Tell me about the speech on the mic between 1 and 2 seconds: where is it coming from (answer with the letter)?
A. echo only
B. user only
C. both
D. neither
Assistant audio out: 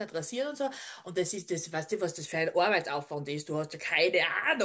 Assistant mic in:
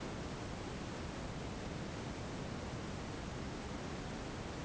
D